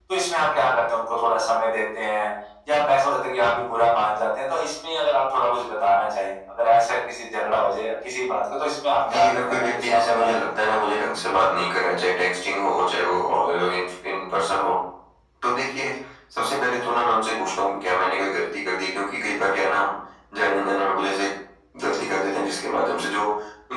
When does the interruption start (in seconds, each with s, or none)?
9.1 s